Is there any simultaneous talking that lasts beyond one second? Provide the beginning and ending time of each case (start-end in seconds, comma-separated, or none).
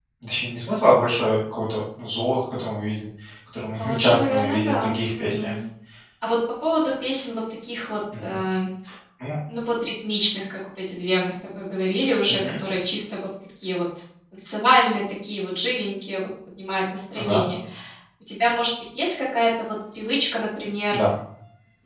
3.7-5.5